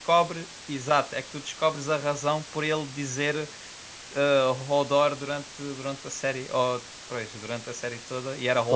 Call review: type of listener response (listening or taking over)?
taking over